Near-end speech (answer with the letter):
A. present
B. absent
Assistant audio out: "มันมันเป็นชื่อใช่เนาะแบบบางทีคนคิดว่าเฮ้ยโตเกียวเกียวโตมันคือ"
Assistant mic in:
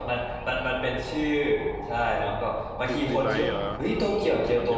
A